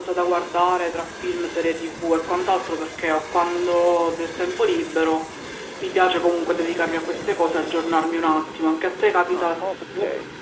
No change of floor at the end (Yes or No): No